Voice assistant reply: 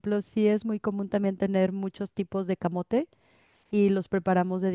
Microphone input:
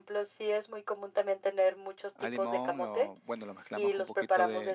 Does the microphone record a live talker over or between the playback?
Yes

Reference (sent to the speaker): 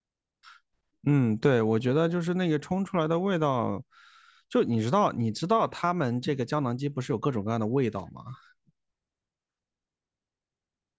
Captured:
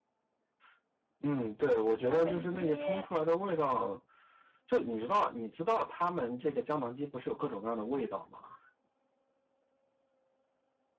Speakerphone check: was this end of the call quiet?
No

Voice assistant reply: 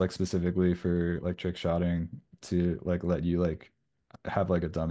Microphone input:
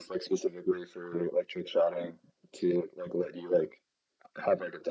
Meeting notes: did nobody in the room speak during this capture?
Yes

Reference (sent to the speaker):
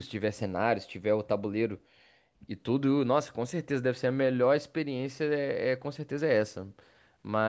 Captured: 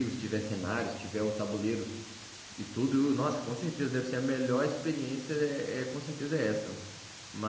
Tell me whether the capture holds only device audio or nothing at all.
Yes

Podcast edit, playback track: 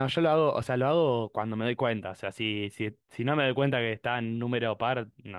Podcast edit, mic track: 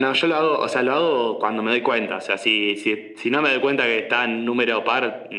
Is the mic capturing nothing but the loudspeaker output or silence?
Yes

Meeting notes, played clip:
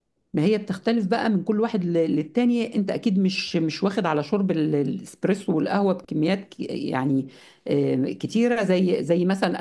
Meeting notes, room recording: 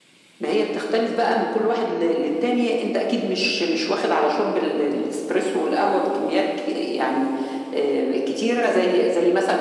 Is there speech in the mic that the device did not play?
No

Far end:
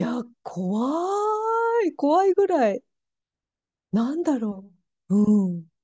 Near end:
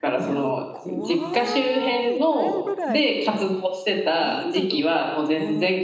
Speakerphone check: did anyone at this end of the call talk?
Yes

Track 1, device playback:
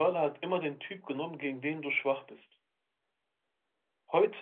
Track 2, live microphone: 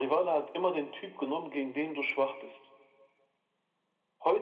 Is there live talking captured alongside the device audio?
No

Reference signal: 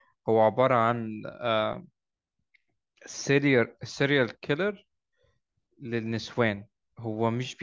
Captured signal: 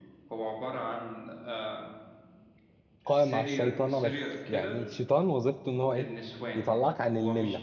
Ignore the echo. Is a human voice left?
Yes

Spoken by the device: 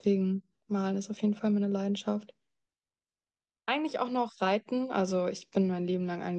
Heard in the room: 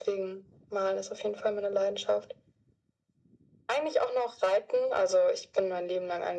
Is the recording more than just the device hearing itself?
No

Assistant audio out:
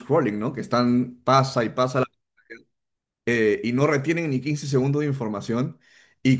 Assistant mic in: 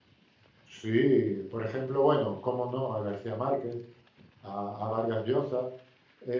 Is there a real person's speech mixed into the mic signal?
Yes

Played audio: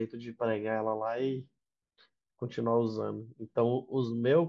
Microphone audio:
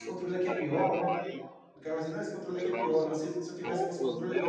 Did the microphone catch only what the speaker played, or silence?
No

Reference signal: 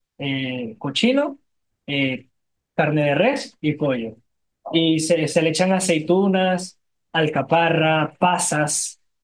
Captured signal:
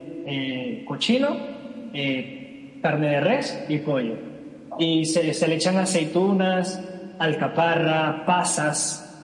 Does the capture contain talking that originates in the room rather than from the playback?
No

